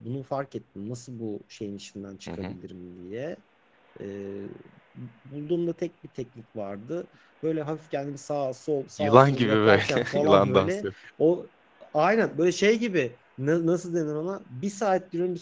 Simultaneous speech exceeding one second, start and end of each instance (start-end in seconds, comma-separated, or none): 9.0-10.9